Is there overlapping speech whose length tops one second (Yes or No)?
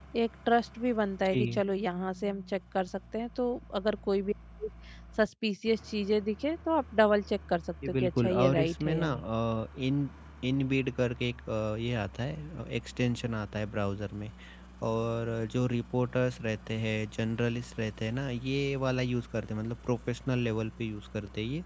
Yes